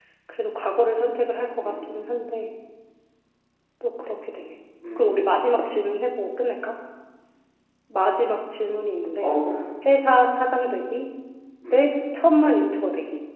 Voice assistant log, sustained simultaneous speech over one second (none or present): none